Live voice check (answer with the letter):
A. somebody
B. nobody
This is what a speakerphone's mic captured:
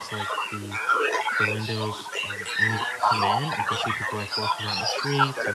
A